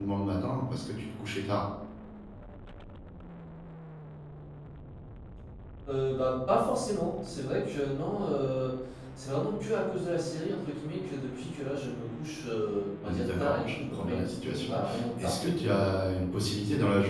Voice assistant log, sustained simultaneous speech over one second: present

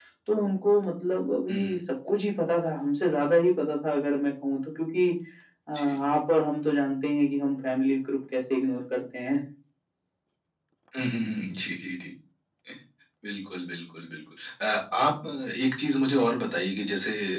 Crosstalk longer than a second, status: none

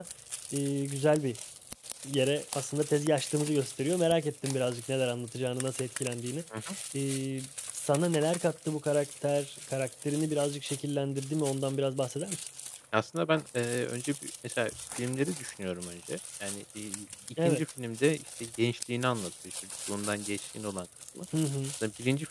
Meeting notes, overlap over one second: none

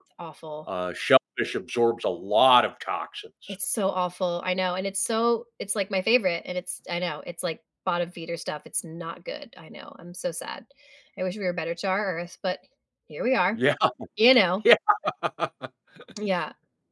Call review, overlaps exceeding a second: none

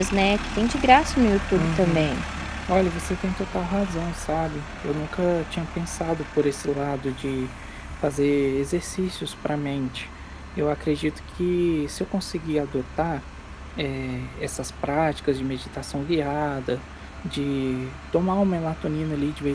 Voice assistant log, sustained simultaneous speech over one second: none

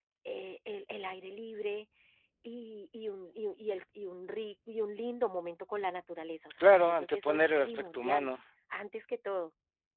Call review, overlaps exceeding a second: present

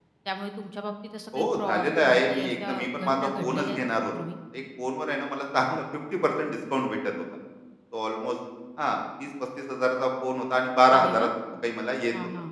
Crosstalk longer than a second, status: present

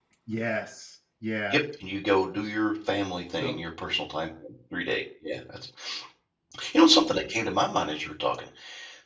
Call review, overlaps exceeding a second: none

